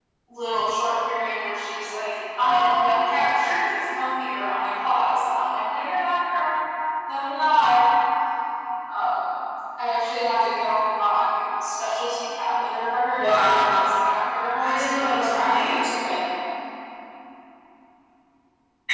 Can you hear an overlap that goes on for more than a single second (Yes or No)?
Yes